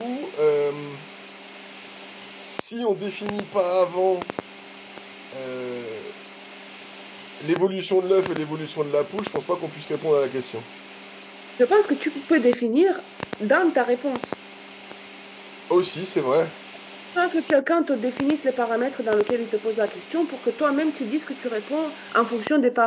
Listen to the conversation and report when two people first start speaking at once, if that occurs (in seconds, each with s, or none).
none